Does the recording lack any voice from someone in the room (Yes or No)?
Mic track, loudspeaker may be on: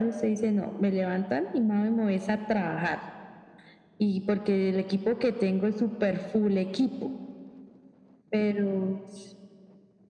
Yes